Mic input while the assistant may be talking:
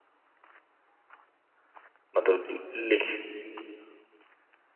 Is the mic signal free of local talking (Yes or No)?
No